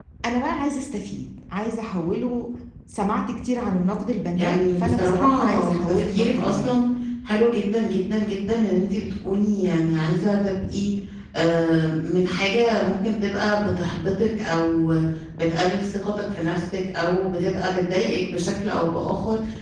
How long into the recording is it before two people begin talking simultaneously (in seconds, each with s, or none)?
4.3 s